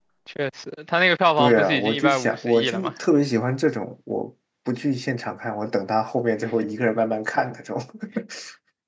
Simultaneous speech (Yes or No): Yes